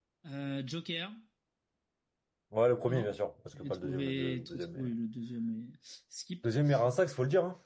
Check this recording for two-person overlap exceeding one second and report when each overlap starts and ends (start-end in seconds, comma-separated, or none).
3.6-4.9